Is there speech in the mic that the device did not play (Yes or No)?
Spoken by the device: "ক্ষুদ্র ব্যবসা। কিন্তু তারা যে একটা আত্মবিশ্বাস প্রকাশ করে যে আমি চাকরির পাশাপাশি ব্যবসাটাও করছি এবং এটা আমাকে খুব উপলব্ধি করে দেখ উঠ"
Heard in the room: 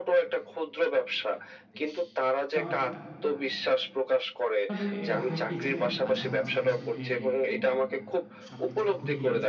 Yes